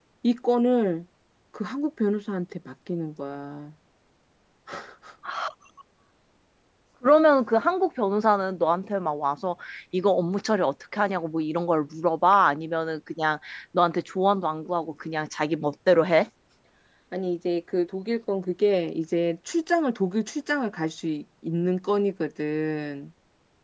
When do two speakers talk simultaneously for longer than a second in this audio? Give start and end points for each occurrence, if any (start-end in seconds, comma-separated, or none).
none